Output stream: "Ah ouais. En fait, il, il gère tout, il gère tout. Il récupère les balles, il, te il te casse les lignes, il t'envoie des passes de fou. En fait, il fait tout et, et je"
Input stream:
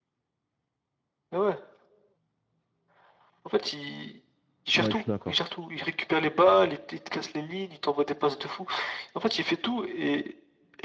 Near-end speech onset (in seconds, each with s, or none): 4.7 s